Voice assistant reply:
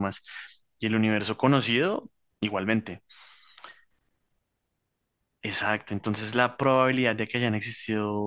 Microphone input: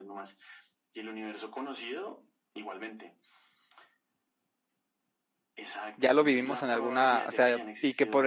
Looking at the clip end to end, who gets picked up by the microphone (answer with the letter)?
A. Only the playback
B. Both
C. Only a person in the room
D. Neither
B